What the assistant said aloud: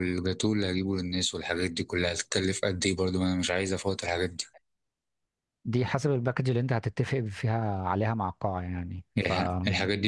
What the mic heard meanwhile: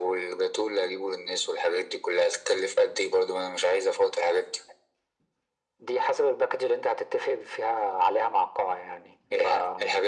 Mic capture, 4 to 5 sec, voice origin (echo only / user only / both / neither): echo only